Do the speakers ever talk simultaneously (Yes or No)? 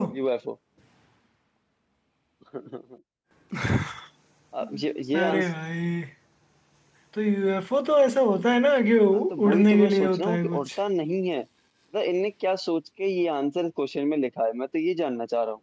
Yes